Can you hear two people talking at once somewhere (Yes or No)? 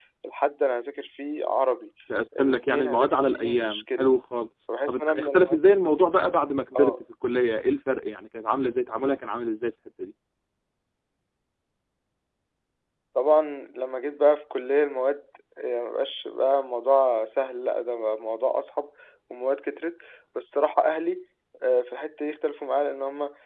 Yes